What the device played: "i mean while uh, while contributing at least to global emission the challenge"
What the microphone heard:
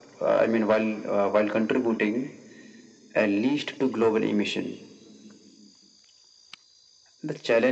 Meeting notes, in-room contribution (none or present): none